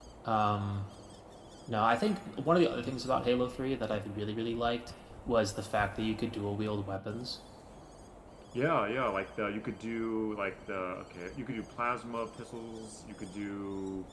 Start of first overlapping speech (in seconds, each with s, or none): none